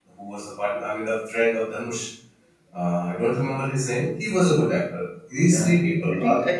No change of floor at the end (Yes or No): No